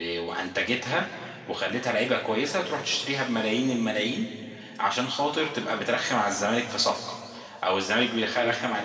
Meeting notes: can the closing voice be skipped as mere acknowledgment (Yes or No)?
Yes